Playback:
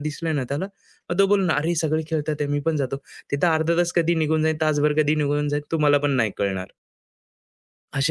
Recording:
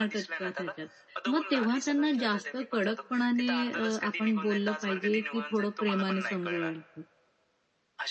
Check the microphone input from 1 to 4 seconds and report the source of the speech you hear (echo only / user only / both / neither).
both